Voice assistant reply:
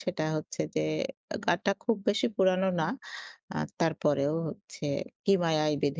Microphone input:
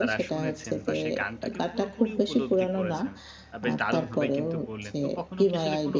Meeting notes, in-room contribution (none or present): present